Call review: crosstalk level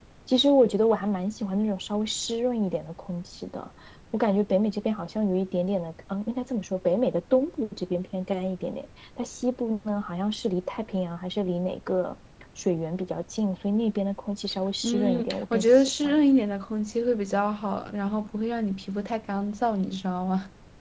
present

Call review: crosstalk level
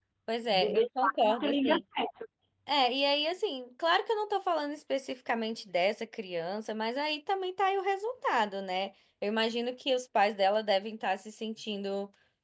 present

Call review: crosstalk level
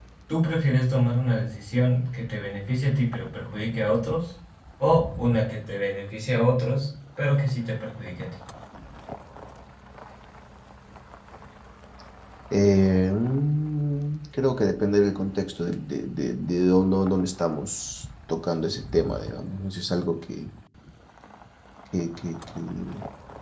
none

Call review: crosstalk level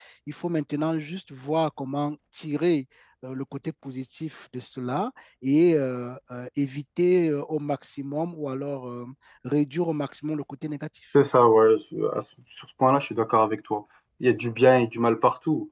none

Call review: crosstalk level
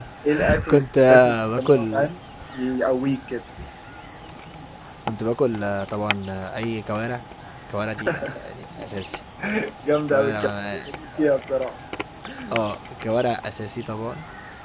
present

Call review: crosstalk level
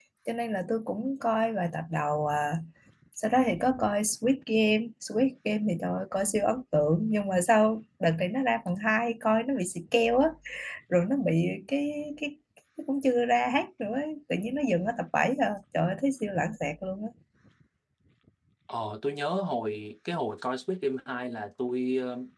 none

